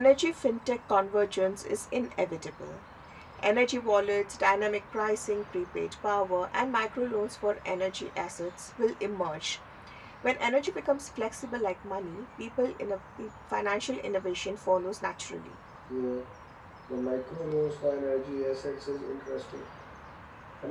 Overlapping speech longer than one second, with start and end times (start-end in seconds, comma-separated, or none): none